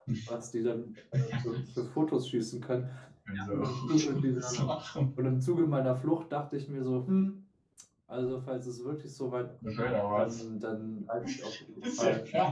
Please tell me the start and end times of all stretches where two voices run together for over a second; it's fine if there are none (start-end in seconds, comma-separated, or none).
3.3-4.7